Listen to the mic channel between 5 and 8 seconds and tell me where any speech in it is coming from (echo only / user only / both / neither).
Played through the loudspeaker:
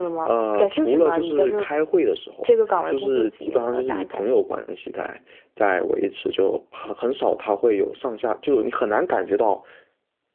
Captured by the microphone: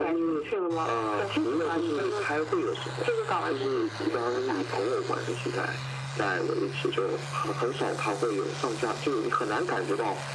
echo only